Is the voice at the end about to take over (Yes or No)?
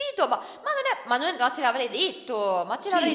Yes